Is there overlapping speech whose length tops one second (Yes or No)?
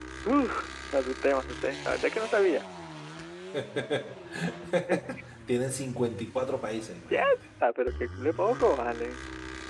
No